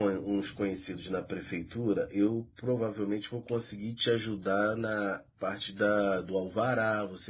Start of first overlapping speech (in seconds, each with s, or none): none